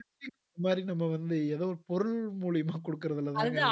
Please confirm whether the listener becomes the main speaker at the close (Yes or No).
Yes